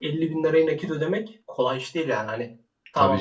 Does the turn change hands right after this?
No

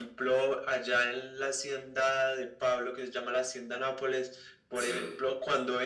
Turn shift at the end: No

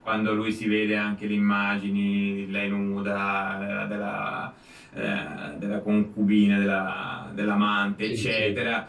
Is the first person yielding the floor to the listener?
No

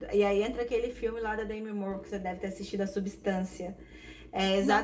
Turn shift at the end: No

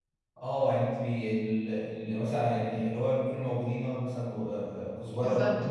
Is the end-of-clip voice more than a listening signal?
No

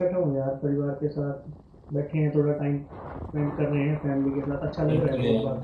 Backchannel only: No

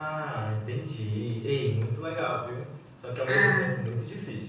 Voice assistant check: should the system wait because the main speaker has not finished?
Yes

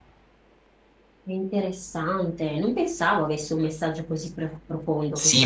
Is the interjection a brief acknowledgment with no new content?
No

